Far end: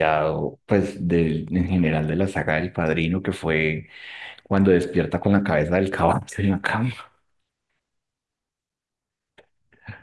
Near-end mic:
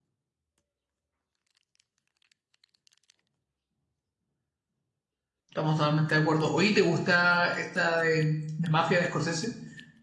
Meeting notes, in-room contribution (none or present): present